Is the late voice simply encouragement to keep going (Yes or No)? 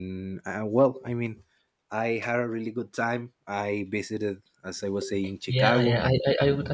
No